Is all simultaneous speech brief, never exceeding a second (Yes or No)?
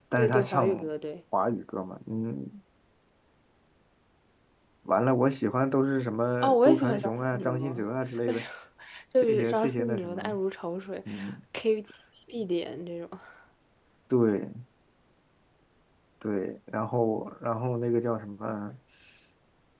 No